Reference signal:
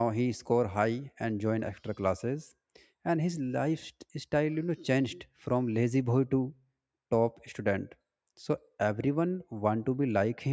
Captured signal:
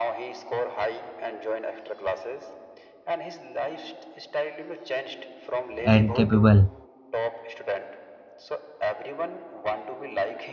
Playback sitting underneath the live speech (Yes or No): Yes